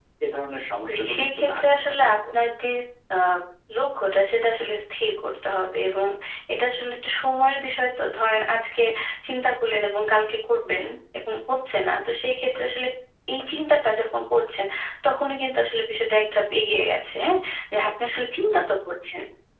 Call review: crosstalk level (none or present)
present